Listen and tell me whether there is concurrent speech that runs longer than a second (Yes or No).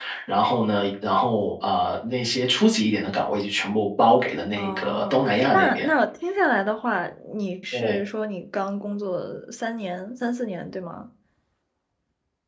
Yes